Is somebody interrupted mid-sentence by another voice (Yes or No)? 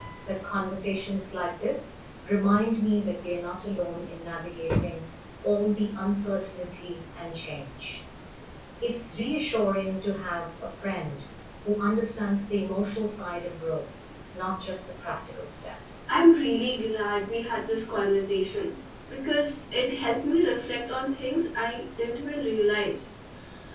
No